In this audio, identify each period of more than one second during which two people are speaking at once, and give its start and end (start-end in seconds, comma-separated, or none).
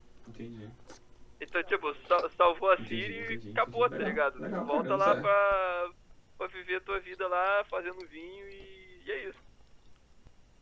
2.8-5.2